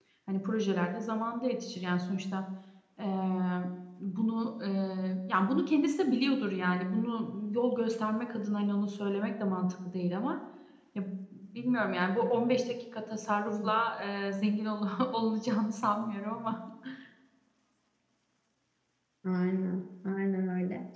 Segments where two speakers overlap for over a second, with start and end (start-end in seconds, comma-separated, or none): none